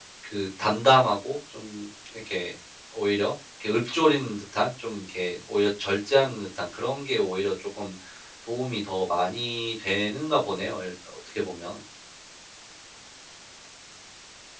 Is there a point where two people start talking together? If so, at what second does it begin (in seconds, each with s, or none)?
none